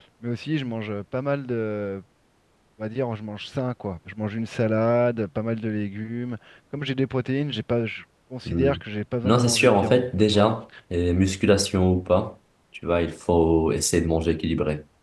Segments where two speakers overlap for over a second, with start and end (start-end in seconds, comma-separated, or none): 9.2-10.5